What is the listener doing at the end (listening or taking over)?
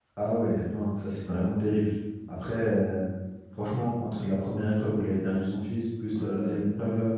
listening